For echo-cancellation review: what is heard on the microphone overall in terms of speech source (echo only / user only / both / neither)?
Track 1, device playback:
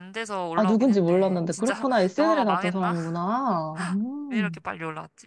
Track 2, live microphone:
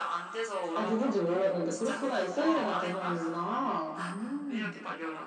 echo only